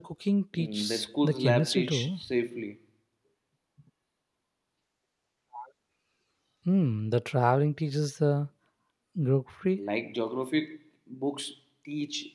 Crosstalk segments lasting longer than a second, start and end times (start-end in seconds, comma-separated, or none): 0.6-2.2